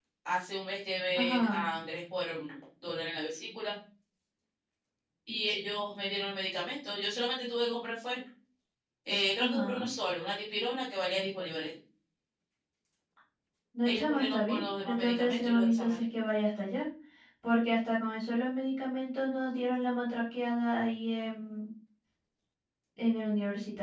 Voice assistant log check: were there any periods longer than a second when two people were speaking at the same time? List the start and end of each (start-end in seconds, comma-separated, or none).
13.8-16.0